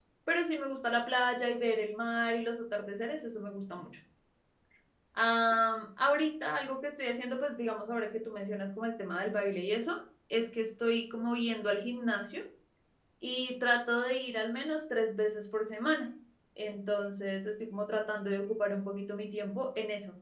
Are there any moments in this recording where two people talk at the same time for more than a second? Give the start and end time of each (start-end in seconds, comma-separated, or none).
none